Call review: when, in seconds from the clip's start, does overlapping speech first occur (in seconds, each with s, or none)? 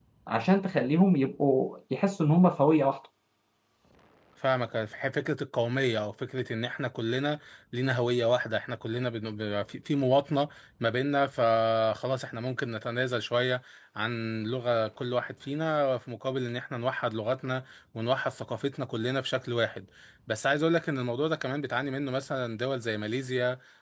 none